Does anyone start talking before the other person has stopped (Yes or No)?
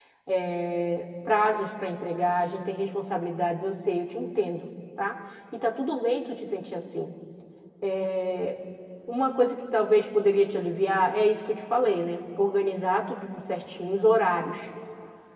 No